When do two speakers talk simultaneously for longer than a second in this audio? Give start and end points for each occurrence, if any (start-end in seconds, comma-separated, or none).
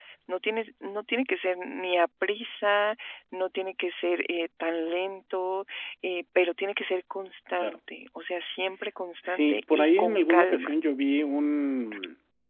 9.2-10.7